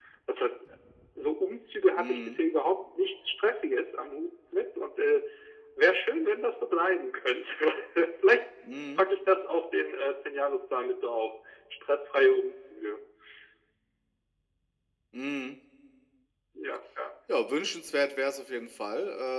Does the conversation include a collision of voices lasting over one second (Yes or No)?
No